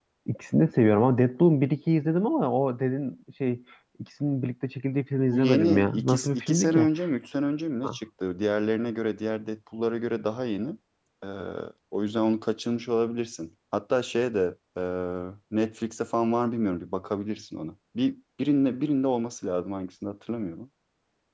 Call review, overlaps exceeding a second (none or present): present